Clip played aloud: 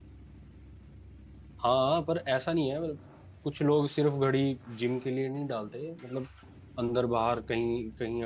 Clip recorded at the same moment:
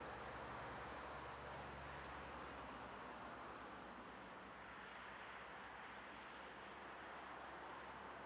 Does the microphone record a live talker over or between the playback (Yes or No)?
No